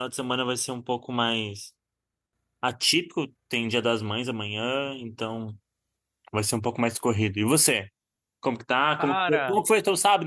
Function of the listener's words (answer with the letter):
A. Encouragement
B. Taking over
A